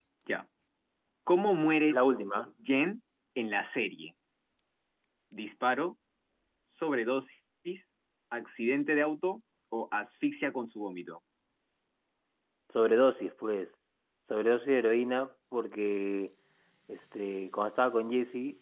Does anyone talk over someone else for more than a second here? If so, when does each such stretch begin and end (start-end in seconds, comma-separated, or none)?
none